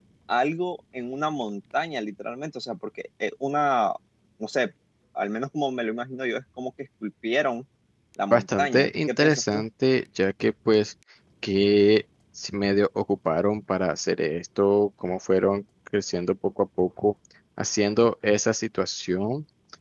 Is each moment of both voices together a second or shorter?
No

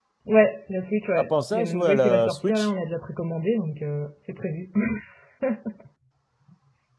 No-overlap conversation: No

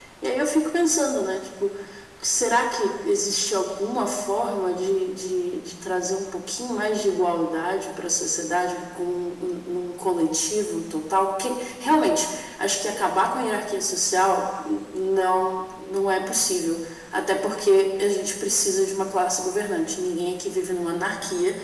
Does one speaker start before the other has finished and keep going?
No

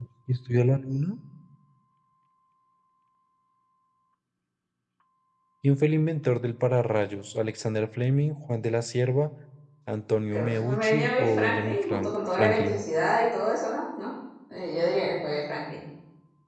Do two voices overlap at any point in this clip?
Yes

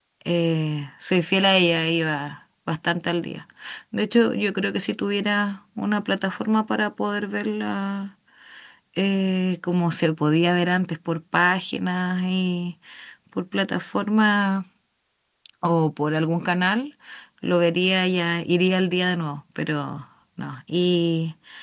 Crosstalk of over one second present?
No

